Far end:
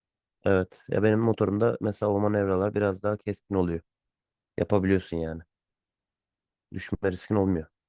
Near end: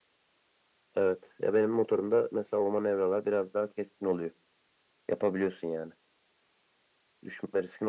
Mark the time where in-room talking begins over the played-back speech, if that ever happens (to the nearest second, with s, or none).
none